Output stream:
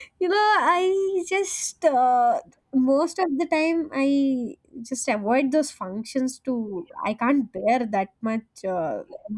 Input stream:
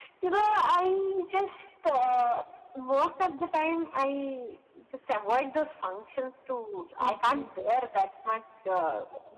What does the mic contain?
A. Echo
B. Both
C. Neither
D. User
B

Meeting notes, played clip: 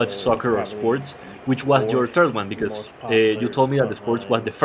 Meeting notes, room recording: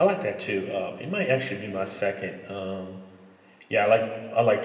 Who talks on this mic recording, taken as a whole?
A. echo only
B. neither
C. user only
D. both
C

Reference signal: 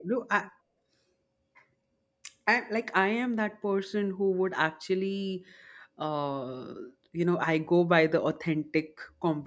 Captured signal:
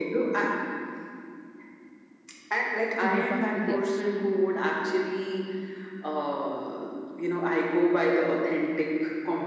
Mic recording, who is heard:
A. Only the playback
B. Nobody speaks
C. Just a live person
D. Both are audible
D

